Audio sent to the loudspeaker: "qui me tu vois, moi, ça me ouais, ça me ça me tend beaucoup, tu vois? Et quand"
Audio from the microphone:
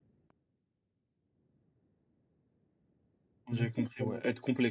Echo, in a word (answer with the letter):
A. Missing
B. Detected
A